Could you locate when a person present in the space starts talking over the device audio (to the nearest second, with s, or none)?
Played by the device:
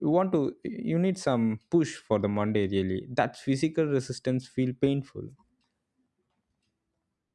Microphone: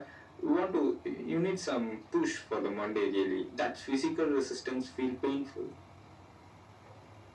none